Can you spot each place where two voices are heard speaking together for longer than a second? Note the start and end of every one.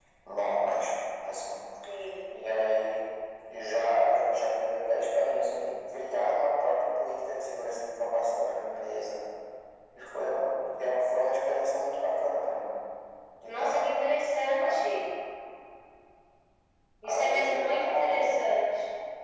17.0-18.4

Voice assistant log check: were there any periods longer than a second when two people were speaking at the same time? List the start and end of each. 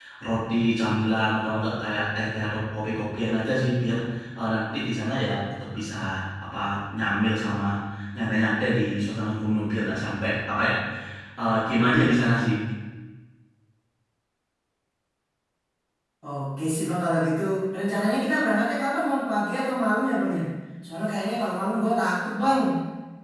none

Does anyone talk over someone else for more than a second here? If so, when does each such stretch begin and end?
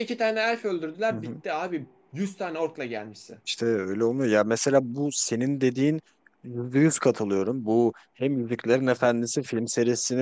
none

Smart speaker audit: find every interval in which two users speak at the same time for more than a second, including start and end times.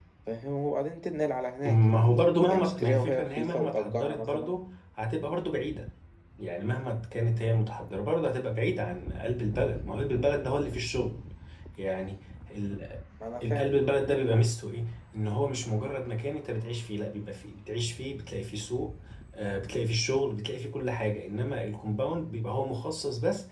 1.6-4.5

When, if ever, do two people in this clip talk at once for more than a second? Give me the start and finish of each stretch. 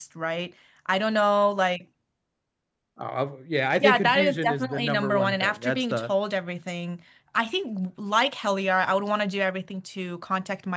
3.8-6.1

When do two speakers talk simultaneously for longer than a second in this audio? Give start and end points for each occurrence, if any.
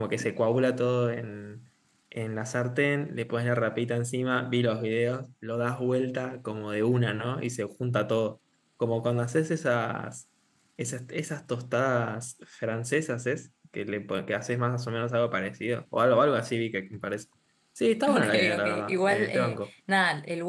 18.1-19.6

